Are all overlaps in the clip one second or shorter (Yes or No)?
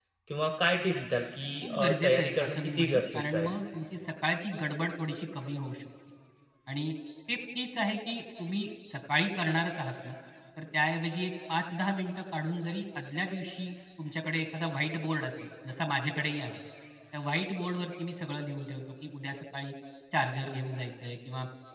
No